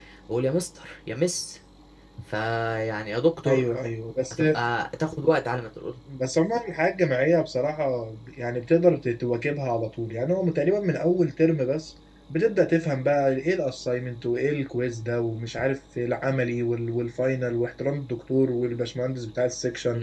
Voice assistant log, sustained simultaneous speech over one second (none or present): none